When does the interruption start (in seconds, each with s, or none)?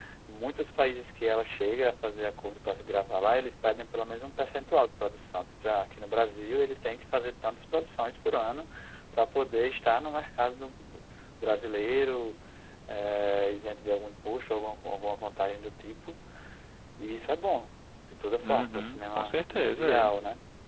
18.4 s